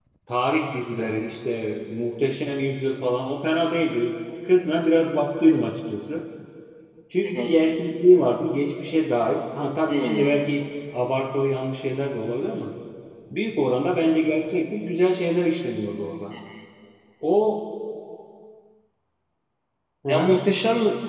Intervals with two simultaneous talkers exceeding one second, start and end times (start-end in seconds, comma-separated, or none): none